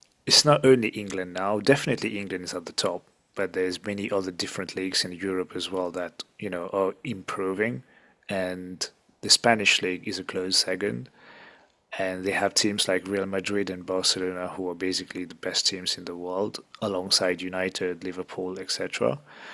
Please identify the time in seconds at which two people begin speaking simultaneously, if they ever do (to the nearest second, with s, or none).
none